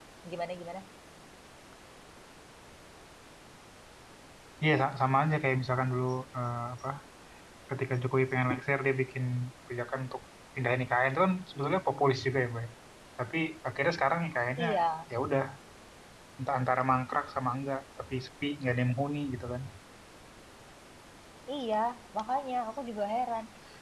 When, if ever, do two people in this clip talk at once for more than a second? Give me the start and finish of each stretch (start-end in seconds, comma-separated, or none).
none